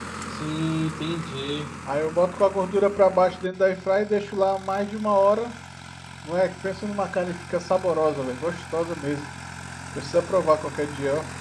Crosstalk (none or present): none